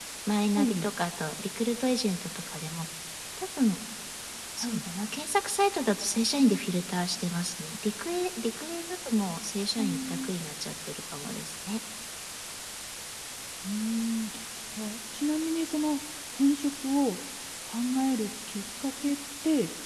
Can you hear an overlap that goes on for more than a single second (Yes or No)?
No